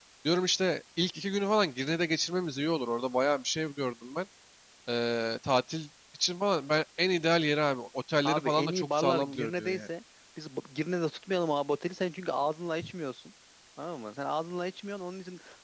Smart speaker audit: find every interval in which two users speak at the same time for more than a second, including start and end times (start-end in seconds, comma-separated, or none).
8.2-9.8